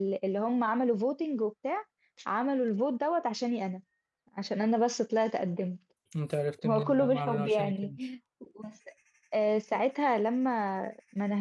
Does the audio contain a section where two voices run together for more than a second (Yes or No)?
Yes